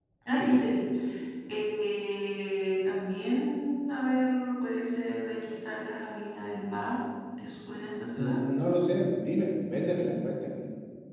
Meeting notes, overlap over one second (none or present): none